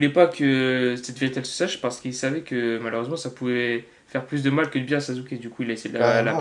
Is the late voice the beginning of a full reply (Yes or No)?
Yes